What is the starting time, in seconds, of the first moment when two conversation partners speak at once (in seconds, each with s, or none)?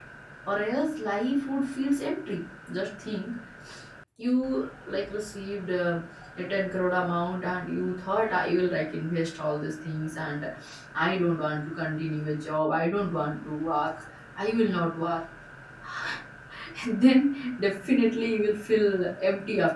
none